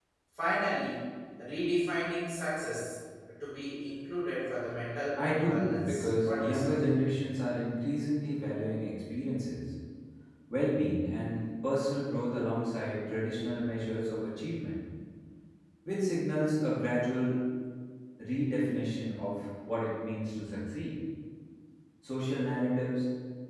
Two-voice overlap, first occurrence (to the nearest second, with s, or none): 5 s